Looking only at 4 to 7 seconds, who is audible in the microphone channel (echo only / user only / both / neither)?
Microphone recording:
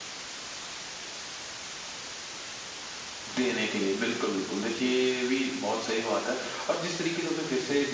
echo only